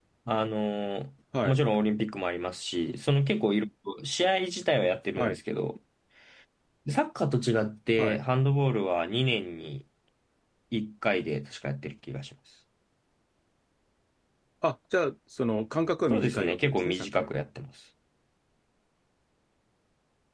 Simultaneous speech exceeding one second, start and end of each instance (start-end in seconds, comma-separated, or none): 16.1-17.3